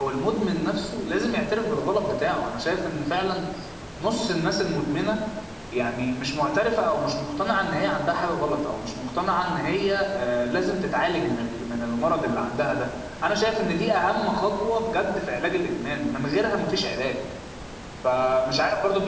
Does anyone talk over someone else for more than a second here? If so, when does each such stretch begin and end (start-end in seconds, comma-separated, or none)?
none